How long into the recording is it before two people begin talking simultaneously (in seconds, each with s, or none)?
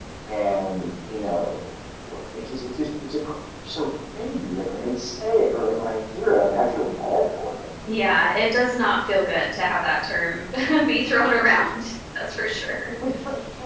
none